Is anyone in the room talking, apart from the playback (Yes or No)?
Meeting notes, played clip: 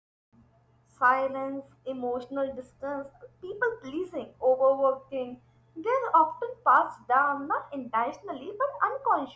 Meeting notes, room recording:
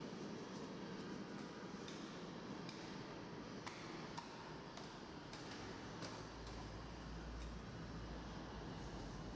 No